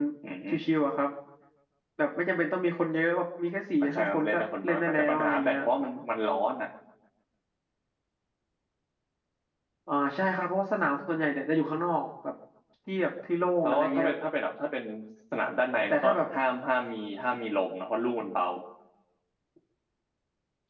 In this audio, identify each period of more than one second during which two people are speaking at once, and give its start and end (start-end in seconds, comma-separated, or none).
3.8-5.5